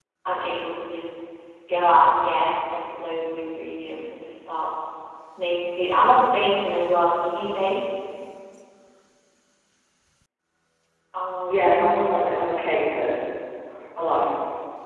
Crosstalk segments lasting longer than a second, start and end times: 11.5-12.8

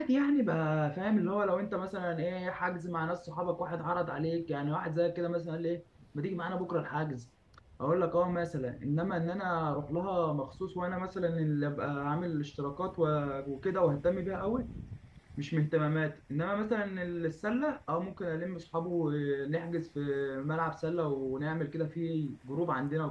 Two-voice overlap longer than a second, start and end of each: none

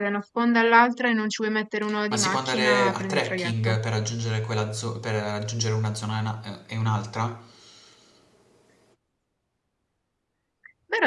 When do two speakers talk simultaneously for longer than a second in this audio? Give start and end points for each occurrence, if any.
2.1-3.8

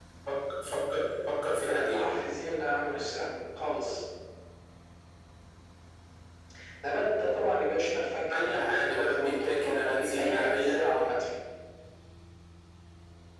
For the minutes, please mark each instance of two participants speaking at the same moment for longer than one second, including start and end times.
8.3-11.0

